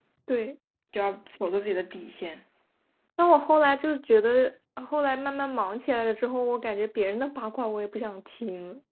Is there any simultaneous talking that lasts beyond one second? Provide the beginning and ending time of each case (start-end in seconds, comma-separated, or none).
none